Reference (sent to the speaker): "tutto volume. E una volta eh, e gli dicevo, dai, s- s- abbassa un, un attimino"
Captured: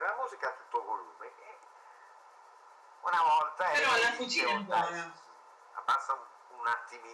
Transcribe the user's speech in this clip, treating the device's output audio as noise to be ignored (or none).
Però la cucina è buona.